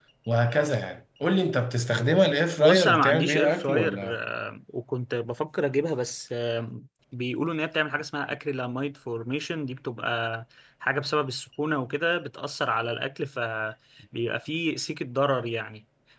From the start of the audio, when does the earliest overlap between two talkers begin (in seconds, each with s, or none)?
2.6 s